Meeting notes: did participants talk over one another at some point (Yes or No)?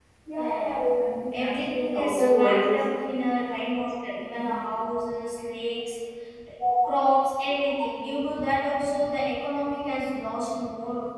Yes